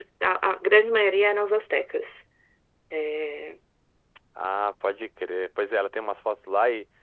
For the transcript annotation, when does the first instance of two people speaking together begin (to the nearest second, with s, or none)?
none